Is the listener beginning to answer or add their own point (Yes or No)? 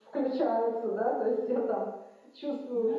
Yes